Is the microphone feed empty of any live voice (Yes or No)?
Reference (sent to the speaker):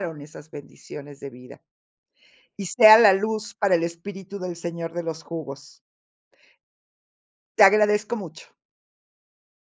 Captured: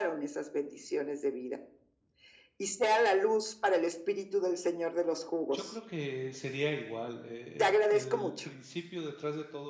No